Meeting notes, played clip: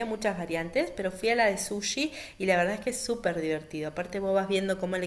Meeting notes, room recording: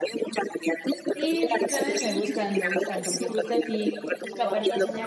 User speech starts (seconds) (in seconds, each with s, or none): 1.1 s